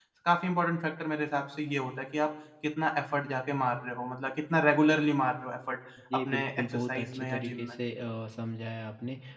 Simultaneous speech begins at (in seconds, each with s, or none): 6.2 s